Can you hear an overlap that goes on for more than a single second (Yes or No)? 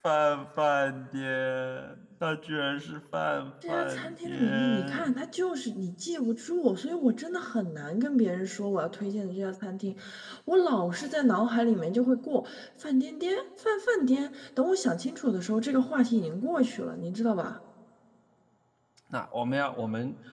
Yes